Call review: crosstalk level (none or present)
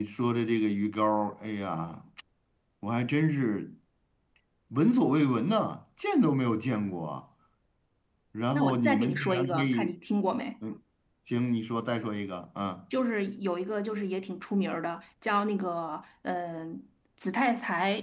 present